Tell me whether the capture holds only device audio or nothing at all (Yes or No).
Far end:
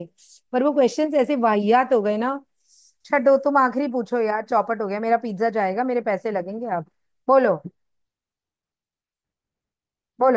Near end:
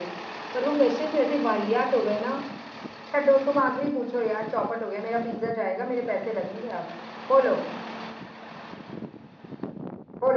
Yes